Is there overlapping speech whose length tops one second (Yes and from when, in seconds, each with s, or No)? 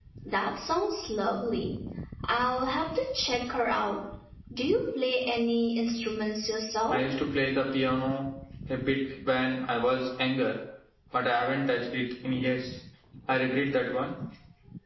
No